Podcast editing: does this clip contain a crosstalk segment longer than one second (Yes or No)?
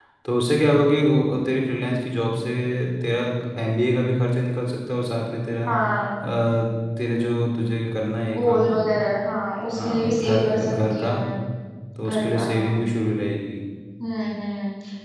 Yes